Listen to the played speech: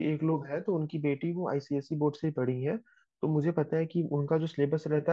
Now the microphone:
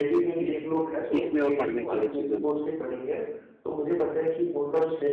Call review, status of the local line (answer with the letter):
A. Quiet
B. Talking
B